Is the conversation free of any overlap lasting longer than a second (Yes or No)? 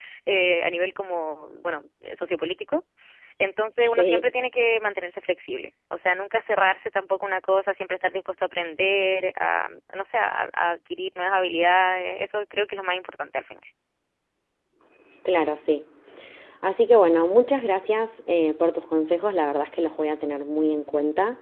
Yes